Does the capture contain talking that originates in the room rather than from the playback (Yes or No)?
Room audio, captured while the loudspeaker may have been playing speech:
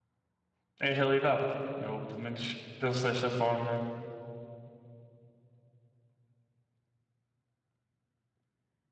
Yes